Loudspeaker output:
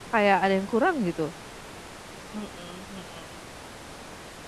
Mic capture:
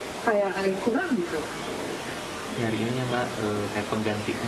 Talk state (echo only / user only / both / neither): both